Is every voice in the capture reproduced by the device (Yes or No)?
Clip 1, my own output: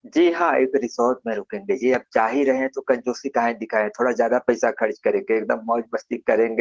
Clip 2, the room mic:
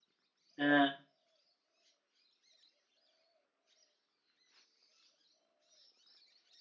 No